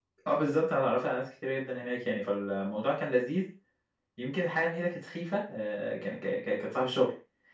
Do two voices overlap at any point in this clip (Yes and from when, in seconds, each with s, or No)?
No